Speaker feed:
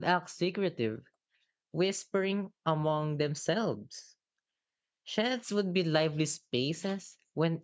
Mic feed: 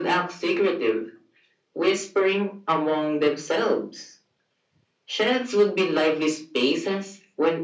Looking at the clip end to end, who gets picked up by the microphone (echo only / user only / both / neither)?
echo only